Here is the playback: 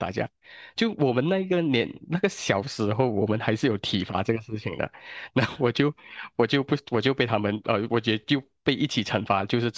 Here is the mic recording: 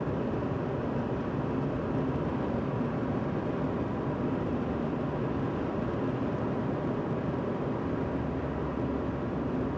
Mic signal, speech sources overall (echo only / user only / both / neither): neither